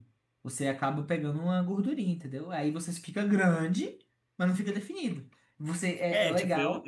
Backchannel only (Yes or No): No